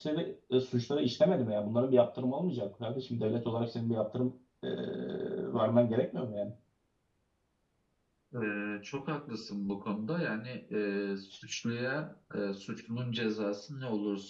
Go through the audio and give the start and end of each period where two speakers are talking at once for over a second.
none

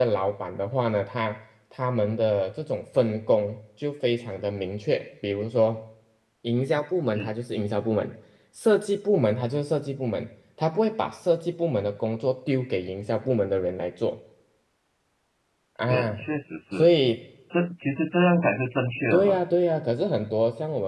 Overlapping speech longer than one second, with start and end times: none

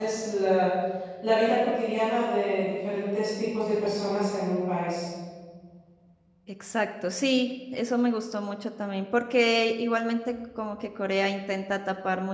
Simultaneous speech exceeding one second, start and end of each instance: none

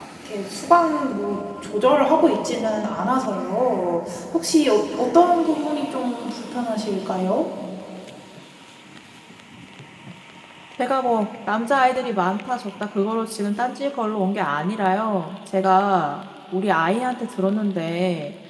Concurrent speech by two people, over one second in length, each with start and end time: none

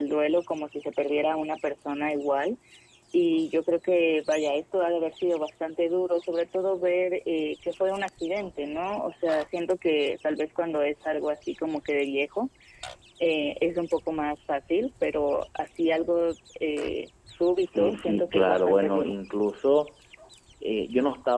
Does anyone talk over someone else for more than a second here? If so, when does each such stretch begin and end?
17.8-19.1

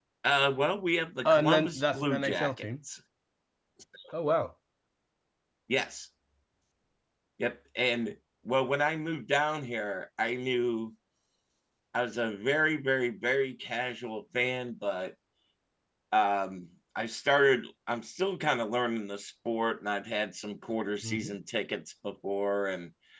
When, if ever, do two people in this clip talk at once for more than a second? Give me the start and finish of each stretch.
1.2-2.6

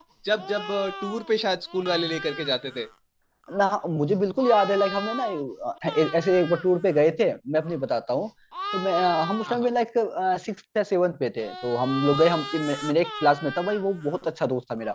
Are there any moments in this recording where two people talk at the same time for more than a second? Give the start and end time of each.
none

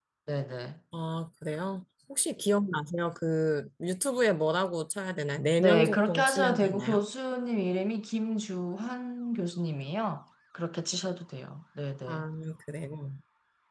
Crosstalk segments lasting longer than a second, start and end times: 5.6-7.0

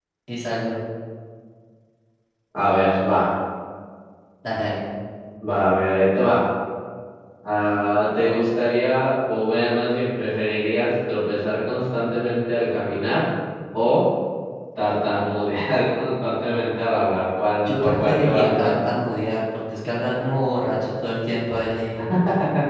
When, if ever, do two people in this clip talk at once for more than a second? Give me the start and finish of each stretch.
17.6-18.9

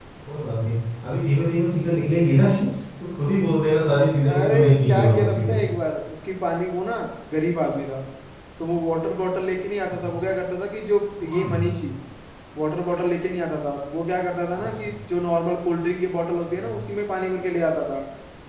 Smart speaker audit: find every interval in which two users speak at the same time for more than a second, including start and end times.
4.3-5.6

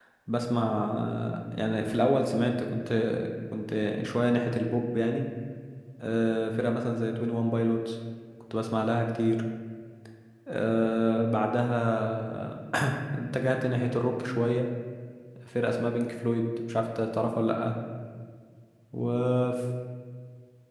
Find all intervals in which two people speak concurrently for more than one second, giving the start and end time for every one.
none

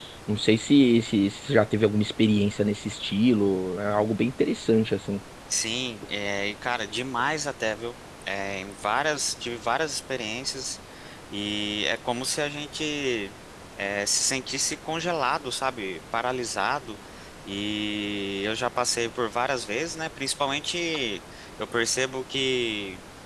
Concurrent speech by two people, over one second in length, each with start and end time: none

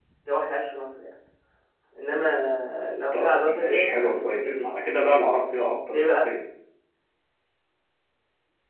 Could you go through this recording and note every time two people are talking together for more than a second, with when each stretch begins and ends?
3.1-4.7

